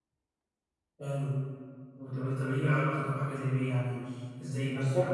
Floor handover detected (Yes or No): Yes